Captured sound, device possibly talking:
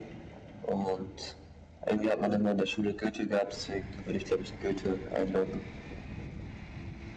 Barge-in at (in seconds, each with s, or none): none